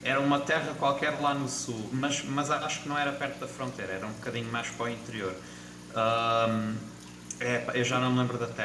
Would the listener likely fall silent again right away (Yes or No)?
Yes